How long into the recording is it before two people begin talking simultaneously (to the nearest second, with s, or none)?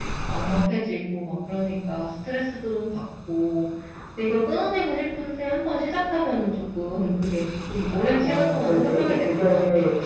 8 s